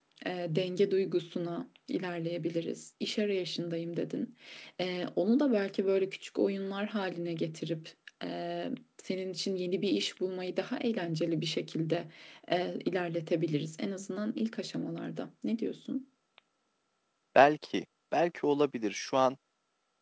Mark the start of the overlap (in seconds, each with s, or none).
none